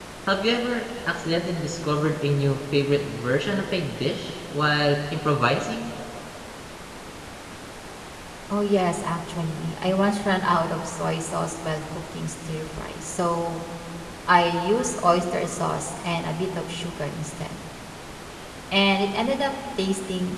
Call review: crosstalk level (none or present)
none